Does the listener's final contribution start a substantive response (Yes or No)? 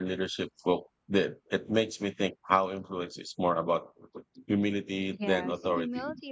Yes